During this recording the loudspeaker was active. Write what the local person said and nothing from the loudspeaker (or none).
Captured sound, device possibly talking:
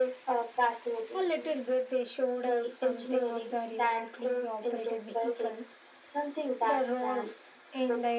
none